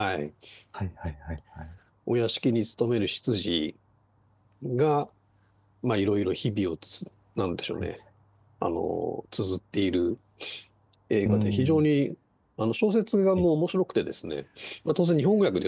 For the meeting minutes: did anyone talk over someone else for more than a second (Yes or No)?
No